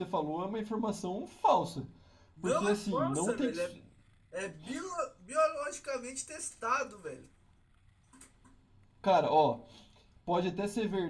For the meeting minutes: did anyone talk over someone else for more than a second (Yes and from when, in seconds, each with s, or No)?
Yes, from 2.4 s